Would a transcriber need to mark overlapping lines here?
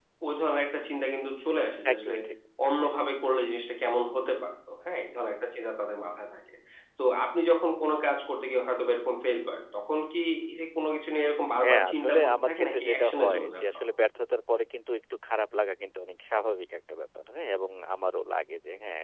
Yes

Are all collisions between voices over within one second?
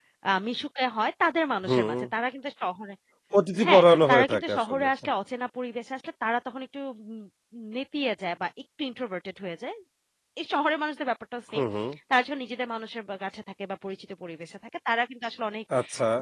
No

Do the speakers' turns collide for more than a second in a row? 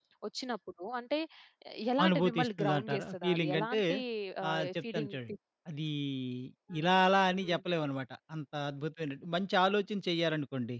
Yes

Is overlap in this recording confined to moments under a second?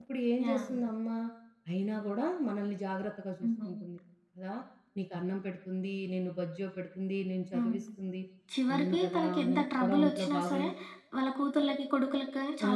No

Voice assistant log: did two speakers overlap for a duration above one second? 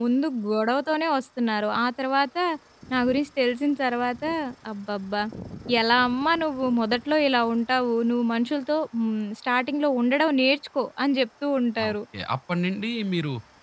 No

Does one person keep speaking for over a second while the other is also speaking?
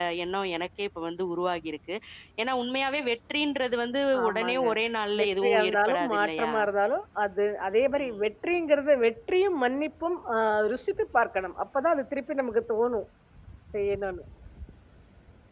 Yes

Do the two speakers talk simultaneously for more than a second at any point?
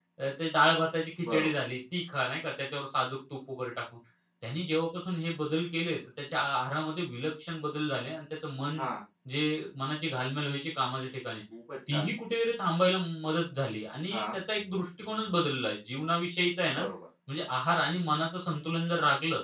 No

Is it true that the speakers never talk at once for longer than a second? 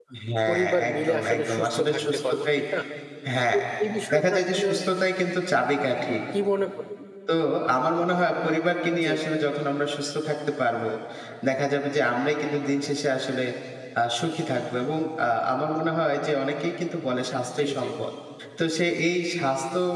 No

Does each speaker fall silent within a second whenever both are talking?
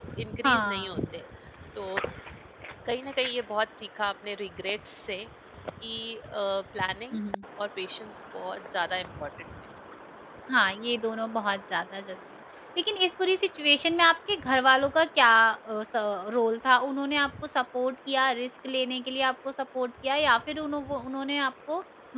Yes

